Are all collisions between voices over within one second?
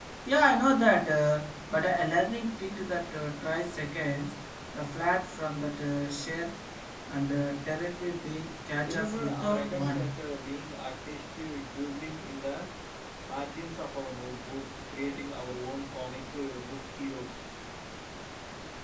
No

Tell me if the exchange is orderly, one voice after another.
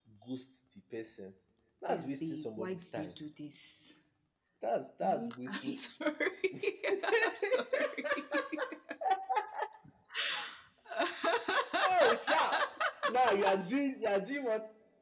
No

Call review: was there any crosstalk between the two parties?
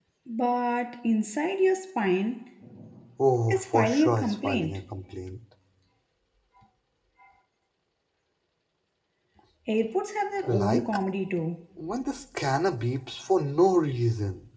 Yes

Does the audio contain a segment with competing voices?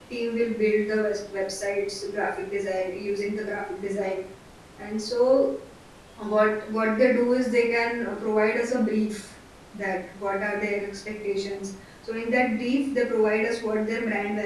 No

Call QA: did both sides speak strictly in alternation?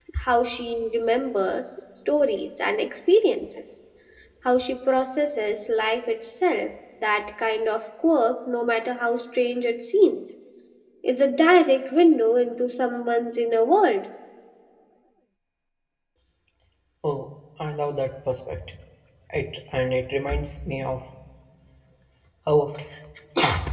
Yes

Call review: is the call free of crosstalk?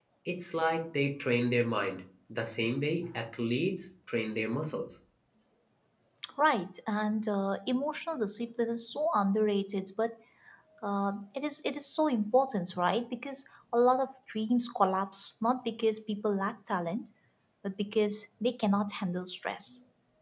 Yes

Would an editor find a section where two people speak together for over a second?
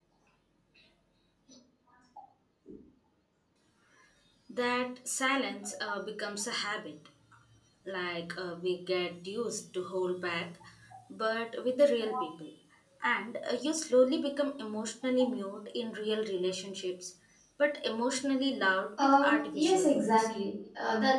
Yes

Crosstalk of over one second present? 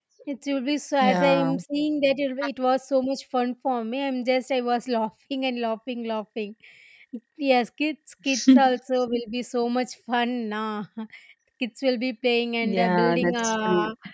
Yes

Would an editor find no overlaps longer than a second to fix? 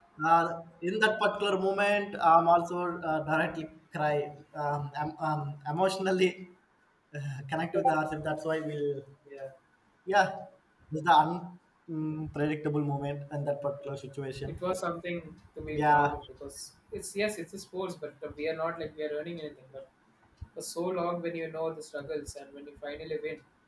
Yes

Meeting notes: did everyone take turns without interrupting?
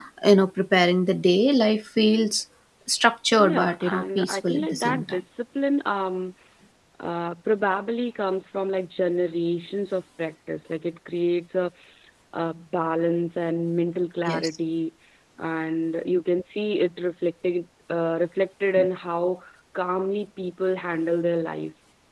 No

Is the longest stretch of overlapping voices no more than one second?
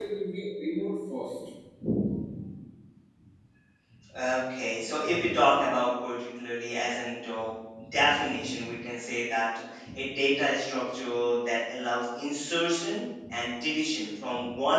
Yes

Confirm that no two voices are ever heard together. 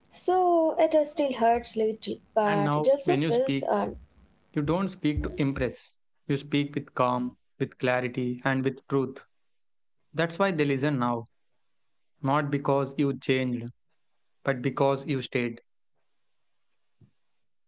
No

